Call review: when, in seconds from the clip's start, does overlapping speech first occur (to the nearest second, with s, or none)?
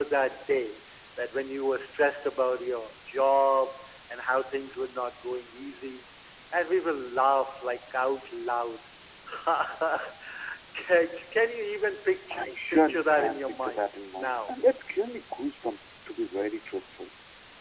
12 s